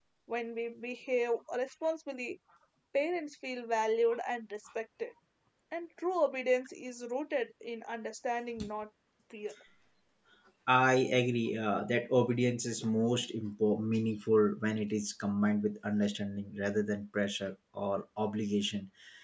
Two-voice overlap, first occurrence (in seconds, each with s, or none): none